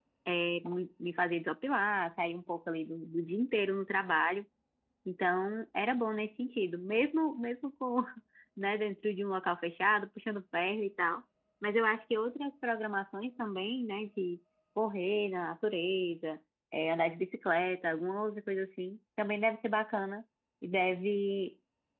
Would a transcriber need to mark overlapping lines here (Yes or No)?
No